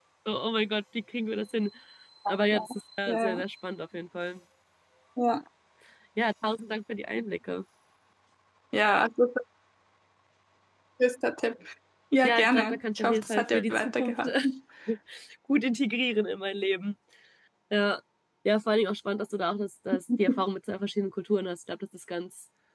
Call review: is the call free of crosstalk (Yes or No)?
No